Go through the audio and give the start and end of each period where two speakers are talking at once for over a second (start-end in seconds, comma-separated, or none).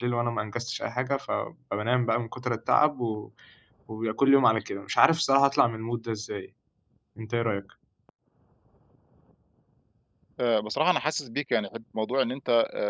none